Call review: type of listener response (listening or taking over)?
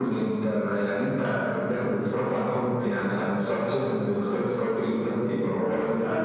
taking over